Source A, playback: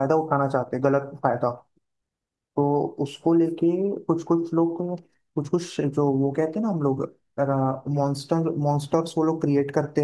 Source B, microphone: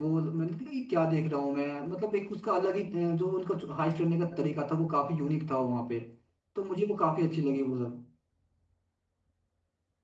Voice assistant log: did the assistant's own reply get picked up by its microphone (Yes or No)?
No